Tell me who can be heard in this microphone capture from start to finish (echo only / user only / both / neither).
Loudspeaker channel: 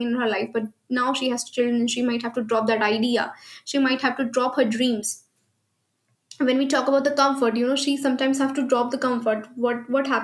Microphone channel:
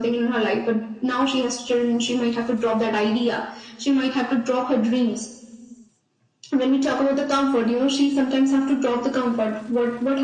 echo only